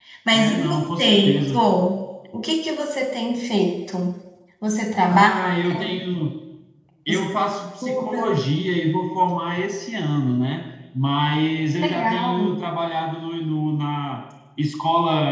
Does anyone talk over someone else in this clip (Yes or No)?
Yes